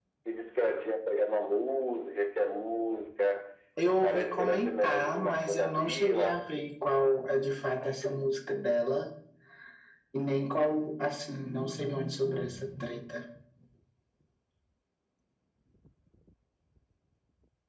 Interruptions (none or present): present